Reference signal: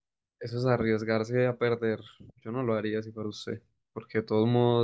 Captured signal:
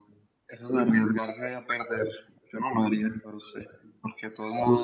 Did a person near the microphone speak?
No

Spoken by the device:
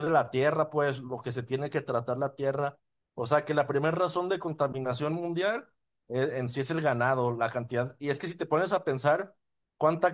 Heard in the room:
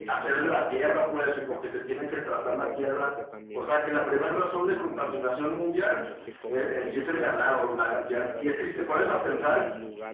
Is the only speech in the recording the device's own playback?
No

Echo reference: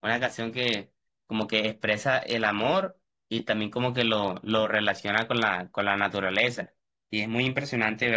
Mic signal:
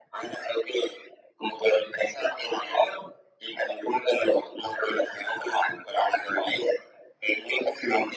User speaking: No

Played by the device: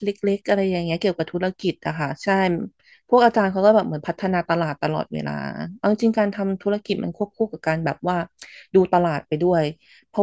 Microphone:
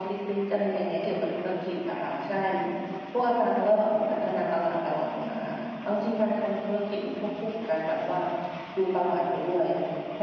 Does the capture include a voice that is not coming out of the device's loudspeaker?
No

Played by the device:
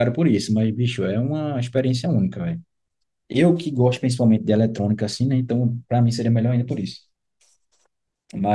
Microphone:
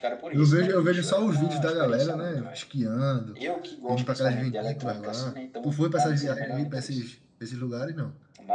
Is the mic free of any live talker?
No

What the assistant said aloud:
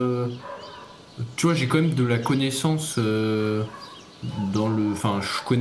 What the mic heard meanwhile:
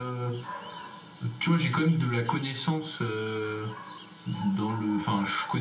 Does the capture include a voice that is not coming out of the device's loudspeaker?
No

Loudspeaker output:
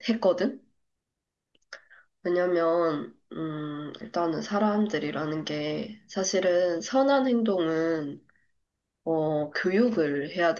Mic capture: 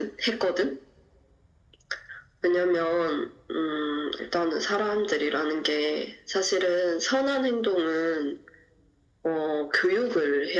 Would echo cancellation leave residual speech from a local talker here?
No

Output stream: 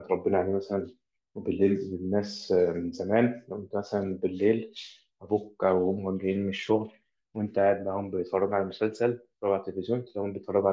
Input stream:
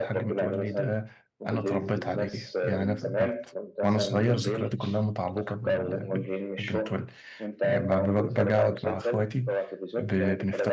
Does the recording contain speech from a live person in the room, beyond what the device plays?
Yes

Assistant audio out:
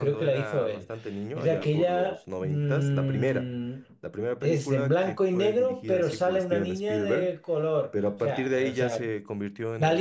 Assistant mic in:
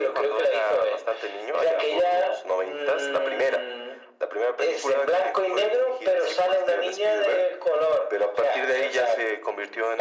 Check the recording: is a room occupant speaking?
No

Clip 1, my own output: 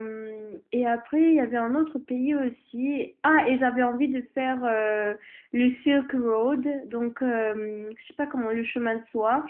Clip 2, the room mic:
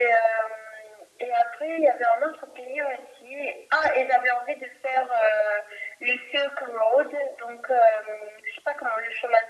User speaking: No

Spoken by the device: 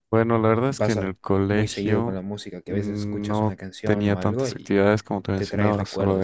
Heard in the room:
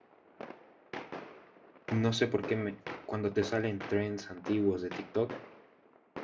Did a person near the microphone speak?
Yes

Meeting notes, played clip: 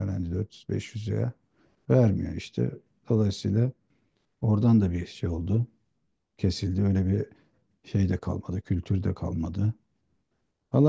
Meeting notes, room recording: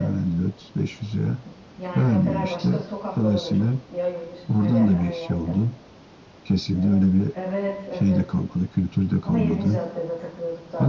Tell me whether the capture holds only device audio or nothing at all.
No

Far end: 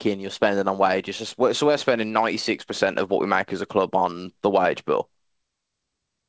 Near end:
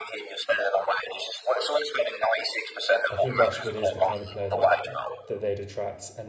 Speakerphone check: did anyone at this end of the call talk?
Yes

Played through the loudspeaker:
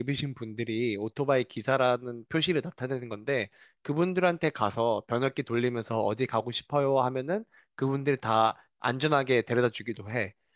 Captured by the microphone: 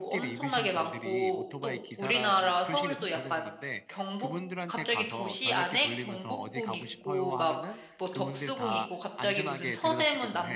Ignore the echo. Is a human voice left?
Yes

